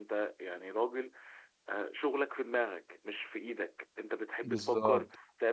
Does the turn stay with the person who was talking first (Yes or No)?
Yes